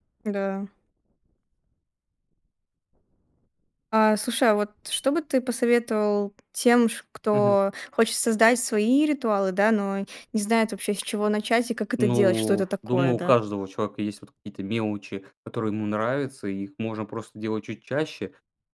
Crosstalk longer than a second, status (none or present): present